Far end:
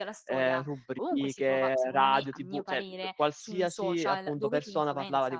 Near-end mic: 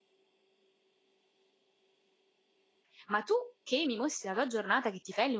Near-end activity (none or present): present